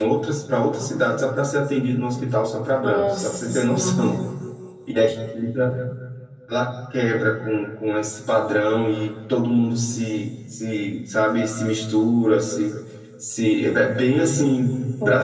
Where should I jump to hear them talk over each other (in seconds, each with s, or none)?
2.7 s